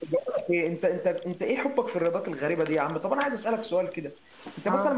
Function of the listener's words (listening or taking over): listening